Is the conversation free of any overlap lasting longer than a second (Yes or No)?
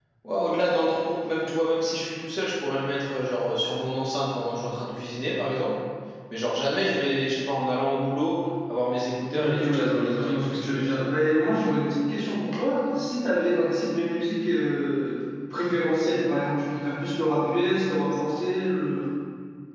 No